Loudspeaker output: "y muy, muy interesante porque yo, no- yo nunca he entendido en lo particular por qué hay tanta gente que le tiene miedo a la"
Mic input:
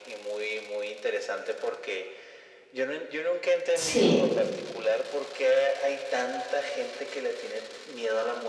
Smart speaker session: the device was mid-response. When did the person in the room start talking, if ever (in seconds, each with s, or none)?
3.7 s